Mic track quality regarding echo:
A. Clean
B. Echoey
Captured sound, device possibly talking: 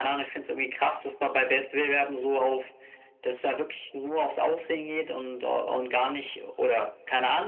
B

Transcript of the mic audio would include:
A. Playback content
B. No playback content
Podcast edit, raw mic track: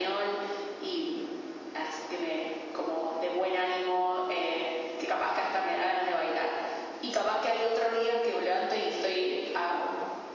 A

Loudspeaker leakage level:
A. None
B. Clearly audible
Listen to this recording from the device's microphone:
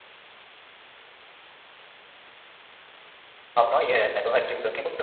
A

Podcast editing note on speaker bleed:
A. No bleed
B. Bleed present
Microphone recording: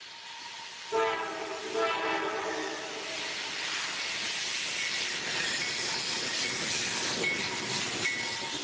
A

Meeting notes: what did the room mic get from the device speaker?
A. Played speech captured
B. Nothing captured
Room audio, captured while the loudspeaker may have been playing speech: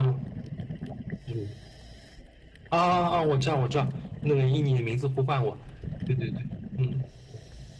A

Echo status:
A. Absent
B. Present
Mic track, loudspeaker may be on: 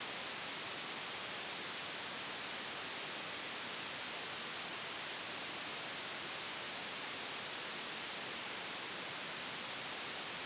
A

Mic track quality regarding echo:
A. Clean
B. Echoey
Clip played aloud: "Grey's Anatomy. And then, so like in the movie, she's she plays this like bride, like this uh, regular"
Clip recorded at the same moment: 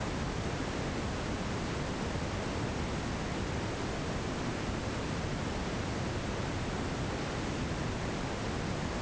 A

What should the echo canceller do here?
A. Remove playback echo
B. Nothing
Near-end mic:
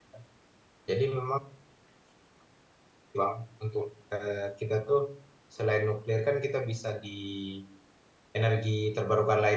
B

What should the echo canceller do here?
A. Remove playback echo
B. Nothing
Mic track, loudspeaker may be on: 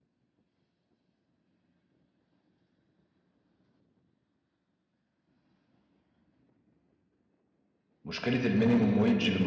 B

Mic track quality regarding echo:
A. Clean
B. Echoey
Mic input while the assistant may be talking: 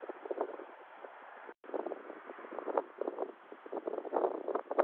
A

